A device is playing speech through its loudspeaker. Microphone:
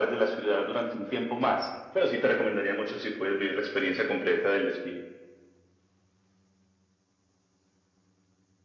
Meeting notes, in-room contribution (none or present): none